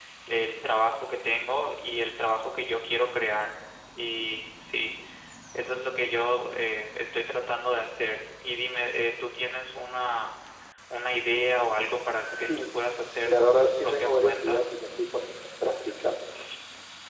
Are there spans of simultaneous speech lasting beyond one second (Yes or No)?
Yes